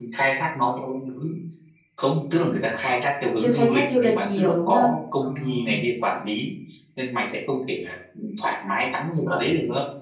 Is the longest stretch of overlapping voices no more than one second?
No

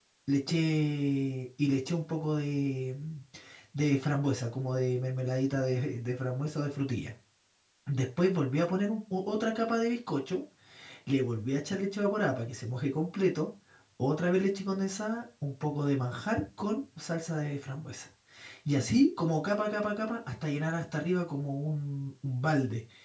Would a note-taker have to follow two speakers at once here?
No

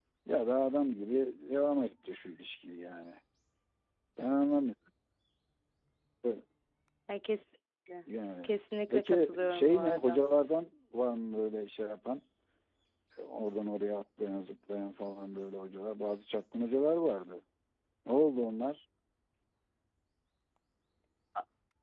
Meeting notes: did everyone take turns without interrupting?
No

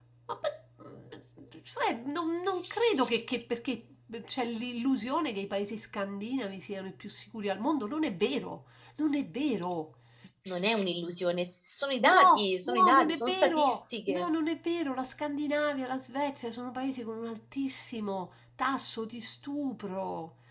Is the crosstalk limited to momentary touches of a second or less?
No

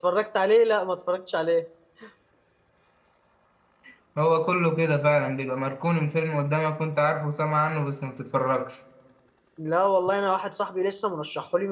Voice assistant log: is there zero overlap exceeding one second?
Yes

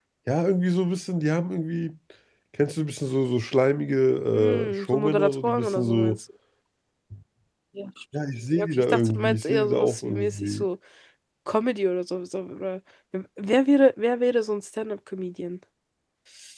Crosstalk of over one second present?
Yes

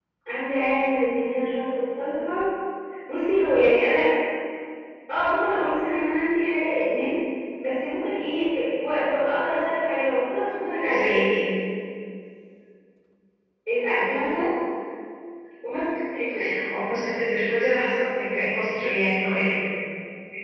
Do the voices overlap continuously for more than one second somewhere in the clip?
No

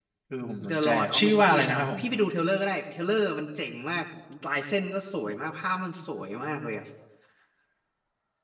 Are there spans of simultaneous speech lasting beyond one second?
Yes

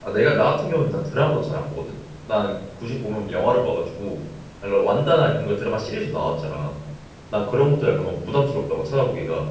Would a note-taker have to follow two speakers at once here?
No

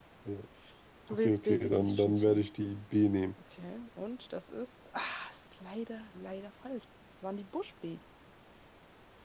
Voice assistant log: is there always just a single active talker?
No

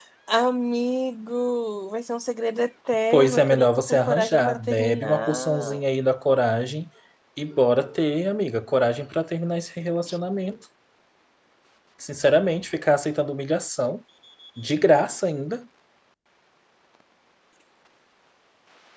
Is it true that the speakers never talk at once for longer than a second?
No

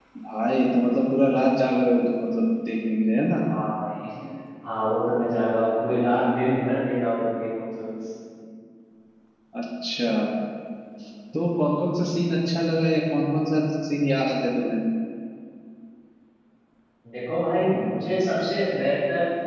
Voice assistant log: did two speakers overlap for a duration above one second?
No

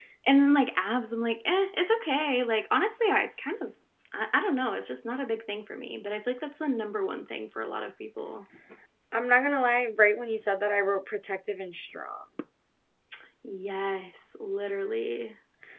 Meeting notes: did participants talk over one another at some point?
No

